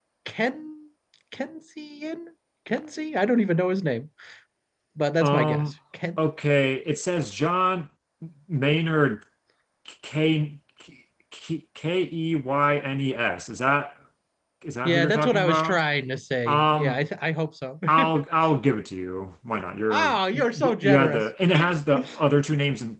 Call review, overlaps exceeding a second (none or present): present